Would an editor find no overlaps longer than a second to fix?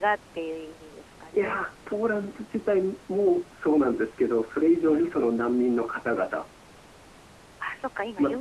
Yes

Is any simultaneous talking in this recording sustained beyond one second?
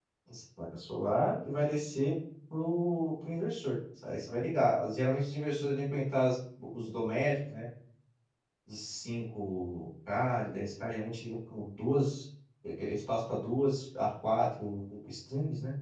No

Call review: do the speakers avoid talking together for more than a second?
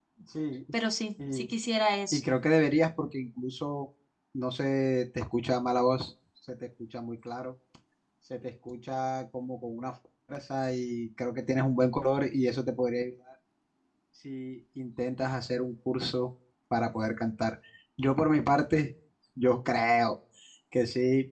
Yes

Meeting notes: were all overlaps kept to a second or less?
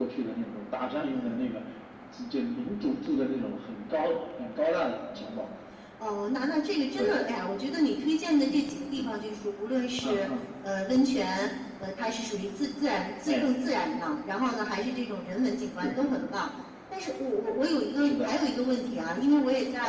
Yes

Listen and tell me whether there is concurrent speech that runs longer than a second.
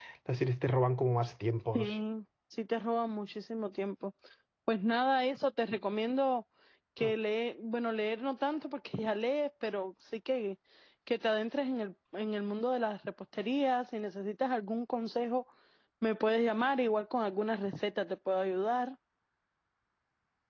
No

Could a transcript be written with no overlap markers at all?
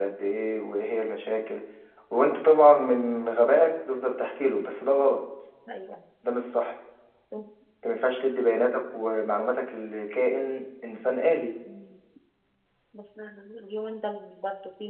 Yes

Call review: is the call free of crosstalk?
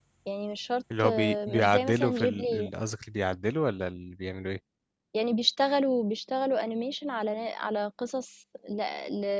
No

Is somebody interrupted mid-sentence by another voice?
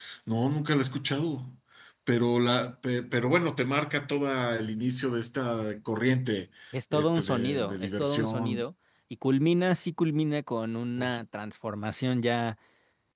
Yes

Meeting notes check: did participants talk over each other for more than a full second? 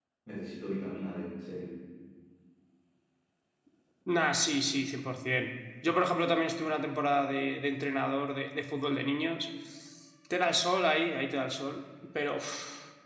No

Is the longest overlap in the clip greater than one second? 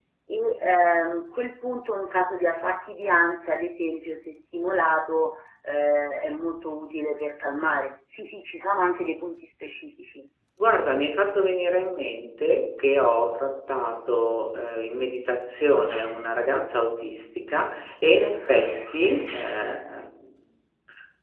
No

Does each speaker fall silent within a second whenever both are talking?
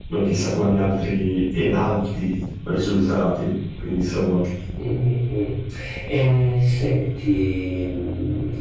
Yes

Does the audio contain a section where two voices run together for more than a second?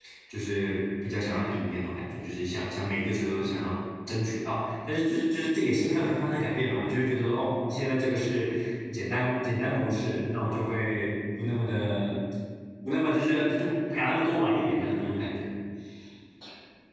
No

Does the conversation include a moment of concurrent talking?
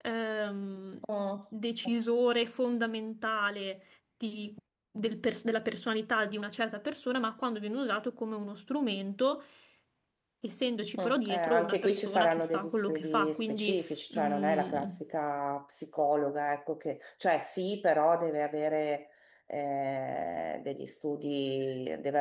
Yes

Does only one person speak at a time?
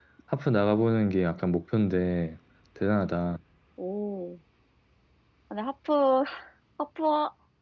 Yes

